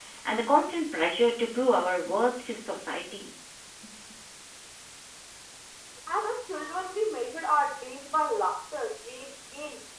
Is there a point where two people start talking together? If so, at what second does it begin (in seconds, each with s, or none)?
none